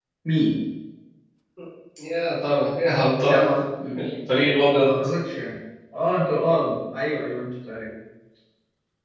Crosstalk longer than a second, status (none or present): none